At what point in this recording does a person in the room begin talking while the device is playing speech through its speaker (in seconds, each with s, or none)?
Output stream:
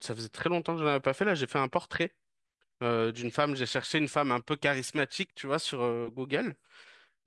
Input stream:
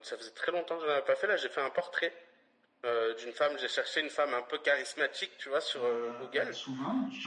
5.8 s